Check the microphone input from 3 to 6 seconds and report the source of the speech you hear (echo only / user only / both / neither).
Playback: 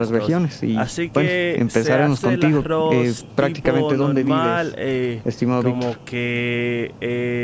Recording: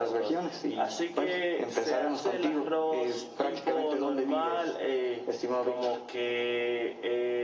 echo only